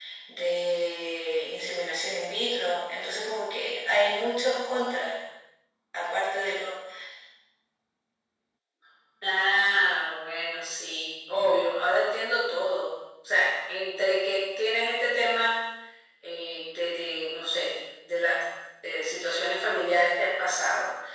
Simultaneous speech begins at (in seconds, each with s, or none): none